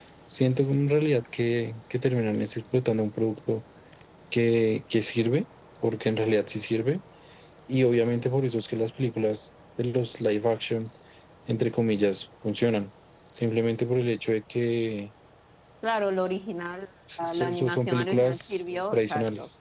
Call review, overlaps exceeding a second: present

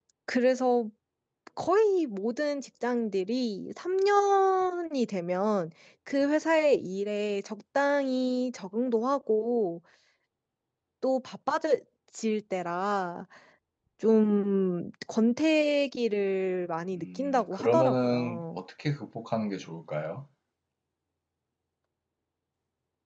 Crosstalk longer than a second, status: present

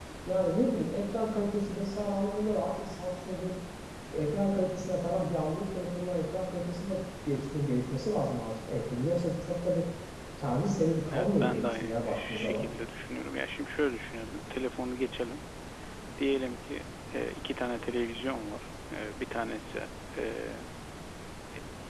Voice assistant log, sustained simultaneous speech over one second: present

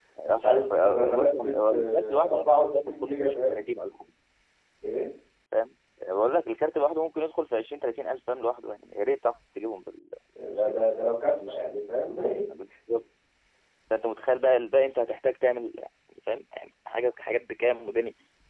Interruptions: present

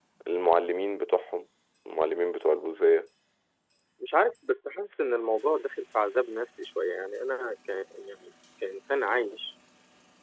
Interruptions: none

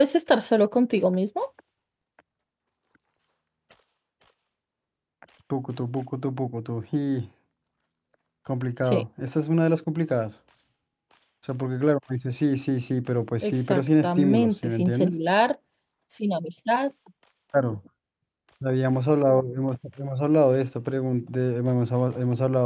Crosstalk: present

